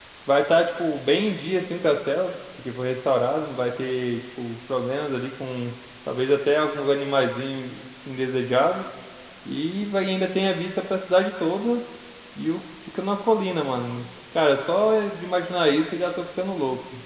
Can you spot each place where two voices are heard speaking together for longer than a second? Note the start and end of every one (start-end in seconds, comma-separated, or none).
none